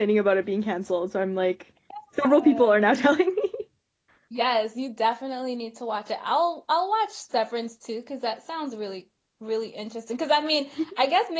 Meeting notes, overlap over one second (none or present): none